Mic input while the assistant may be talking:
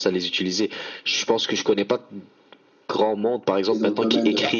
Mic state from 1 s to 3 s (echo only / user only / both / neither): echo only